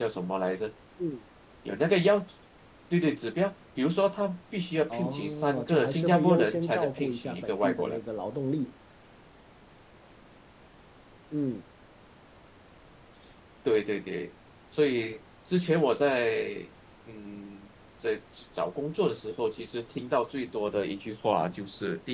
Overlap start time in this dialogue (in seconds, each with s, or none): 4.9 s